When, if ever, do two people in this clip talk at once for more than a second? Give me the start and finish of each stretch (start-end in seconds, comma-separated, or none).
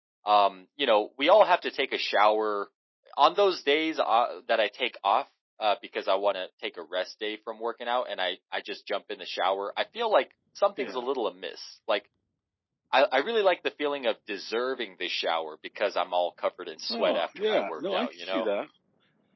16.9-18.5